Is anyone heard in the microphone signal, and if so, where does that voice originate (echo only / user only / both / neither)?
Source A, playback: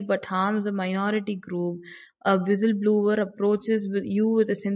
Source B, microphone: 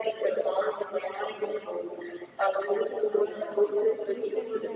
both